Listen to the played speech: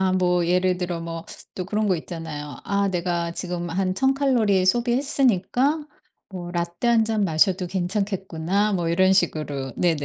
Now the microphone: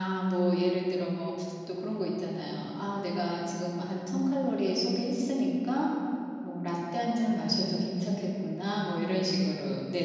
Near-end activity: none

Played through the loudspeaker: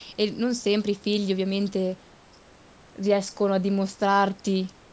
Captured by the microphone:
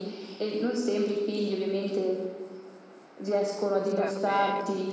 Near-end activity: present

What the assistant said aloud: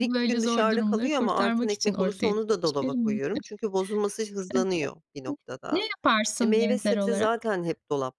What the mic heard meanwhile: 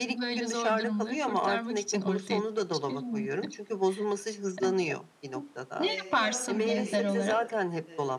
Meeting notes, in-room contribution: present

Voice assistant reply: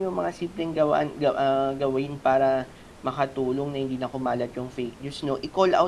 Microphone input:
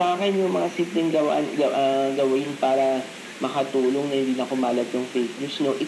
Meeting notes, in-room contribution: none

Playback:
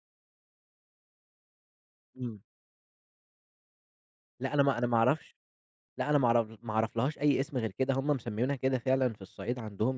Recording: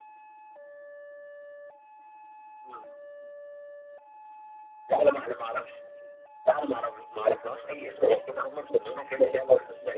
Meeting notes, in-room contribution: none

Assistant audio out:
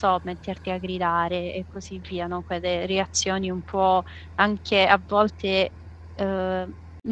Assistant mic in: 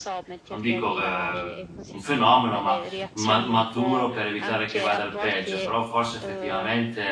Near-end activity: present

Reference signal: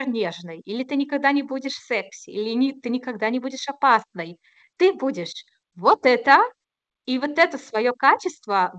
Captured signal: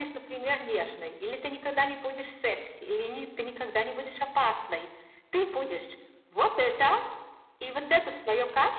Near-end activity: none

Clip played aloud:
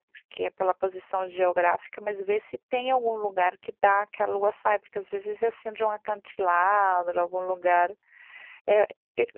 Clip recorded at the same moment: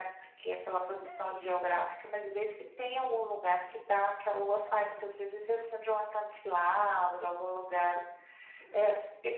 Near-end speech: none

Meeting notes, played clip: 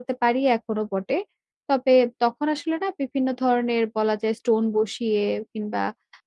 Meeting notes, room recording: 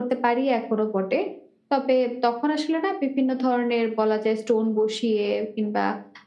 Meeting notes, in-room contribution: none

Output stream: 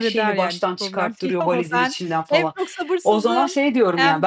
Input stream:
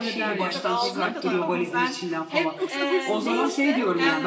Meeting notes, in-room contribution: present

